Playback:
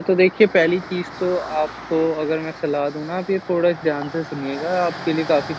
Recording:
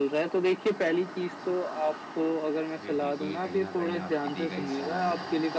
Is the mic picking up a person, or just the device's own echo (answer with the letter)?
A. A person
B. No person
A